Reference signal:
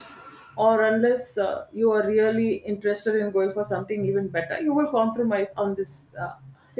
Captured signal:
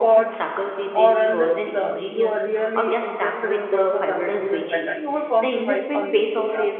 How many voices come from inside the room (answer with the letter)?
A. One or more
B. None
A